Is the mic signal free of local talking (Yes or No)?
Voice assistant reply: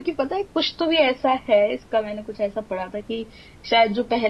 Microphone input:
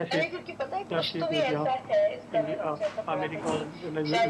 No